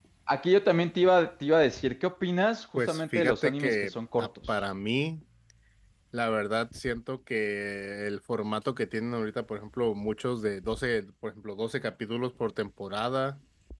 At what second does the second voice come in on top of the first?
2.8 s

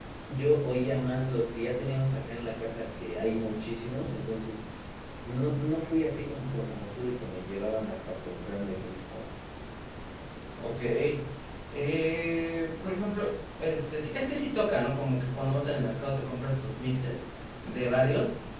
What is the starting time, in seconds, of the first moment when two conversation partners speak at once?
none

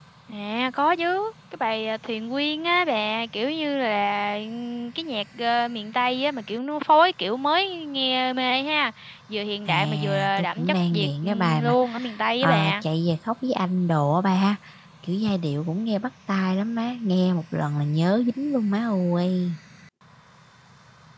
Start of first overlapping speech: 9.7 s

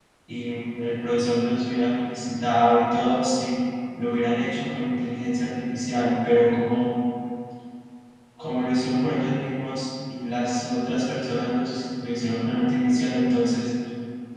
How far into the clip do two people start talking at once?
none

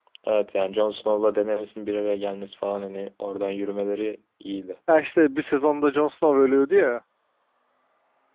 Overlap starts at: none

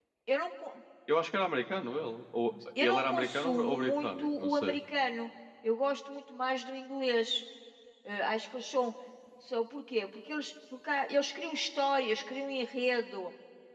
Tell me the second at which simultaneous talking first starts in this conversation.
2.8 s

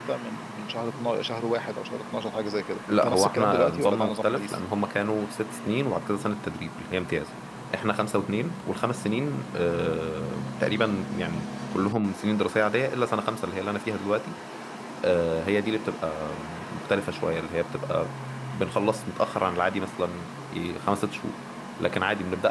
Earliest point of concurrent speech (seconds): 2.9 s

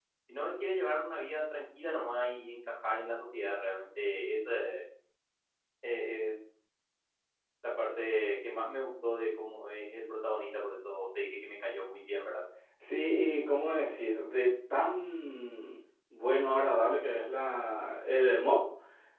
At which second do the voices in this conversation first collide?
none

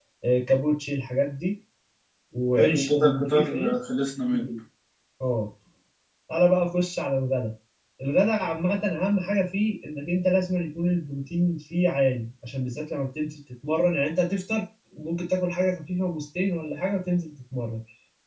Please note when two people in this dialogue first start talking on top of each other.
2.5 s

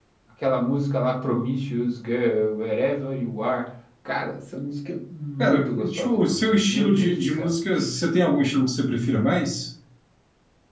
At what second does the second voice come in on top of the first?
5.4 s

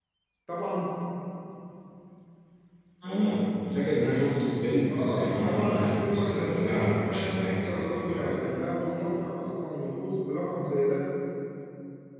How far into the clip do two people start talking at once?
4.9 s

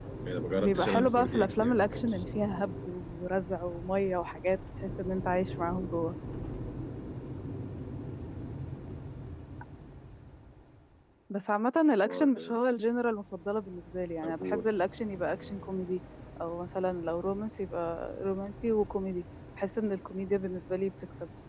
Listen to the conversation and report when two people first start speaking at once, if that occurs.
0.6 s

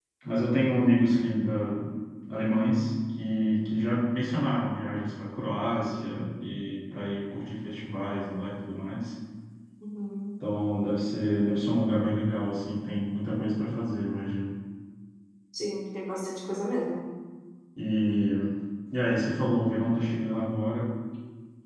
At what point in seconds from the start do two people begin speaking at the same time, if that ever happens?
none

